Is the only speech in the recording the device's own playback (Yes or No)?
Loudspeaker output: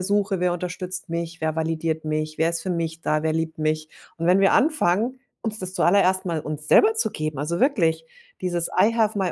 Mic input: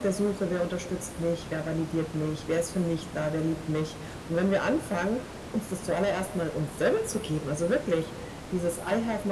Yes